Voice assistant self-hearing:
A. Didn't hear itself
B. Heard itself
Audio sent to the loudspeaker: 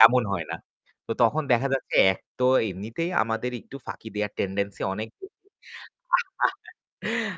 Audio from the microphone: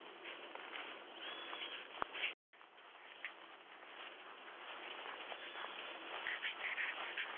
A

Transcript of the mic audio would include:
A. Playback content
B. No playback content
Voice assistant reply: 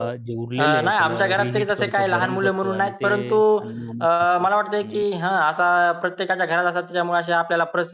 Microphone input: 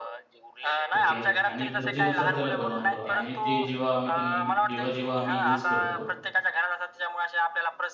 A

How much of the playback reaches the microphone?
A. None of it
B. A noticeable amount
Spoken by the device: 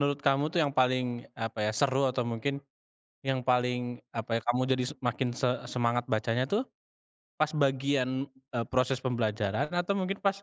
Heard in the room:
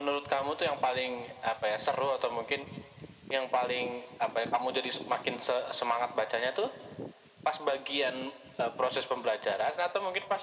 B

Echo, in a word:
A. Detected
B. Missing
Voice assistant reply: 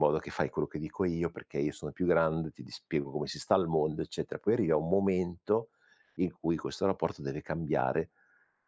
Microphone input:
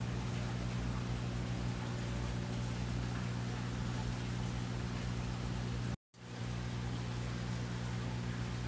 B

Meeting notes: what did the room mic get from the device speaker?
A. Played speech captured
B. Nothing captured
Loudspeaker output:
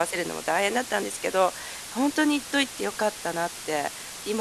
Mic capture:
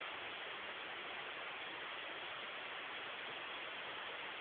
B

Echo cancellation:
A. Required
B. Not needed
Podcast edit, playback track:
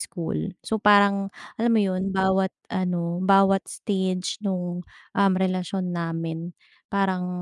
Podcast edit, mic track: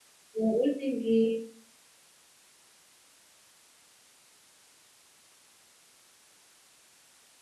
B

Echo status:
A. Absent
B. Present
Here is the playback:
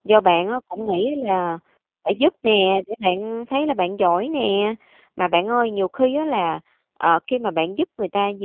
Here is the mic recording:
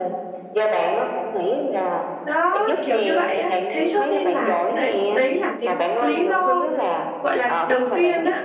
B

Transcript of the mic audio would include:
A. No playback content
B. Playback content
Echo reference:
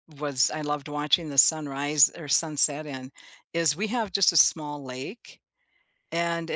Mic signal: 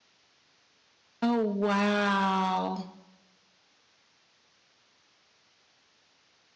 A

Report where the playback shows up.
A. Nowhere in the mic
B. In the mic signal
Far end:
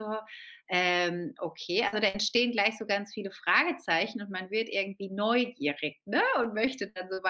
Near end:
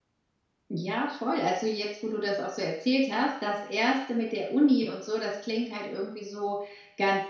A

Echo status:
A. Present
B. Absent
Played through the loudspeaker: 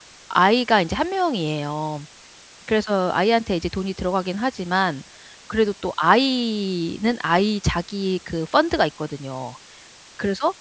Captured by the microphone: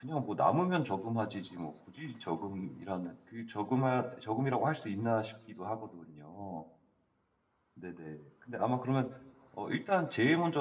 B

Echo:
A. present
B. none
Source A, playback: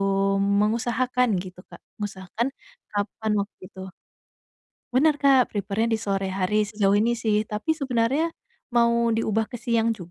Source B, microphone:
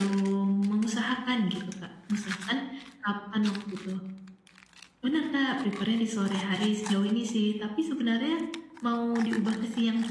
A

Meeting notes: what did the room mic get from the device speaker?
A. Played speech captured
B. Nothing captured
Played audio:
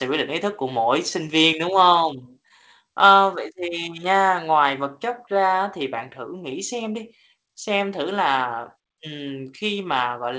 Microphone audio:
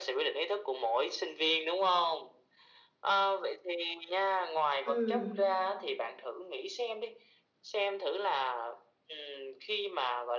A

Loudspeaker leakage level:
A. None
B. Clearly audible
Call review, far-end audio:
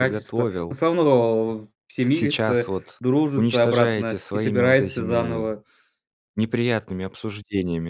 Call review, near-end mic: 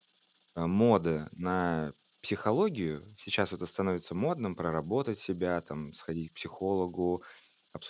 A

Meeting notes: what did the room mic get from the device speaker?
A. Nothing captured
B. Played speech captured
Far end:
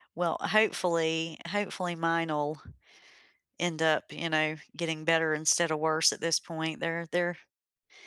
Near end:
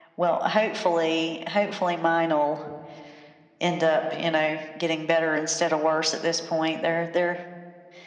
B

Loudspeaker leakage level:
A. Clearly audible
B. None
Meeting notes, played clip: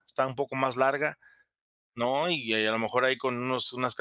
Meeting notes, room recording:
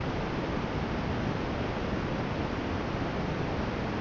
B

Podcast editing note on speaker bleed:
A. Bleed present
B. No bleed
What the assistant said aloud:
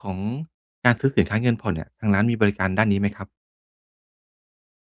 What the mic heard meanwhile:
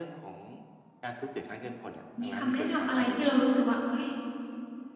A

